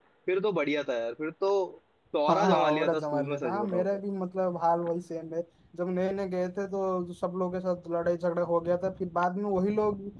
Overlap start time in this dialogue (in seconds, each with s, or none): 2.3 s